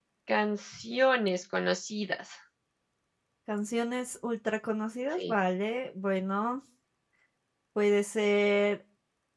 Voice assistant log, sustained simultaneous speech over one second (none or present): none